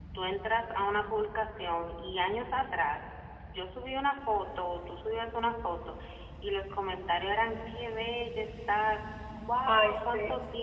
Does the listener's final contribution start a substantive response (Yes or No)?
No